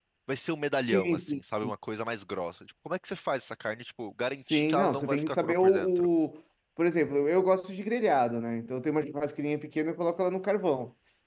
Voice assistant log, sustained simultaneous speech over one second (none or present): present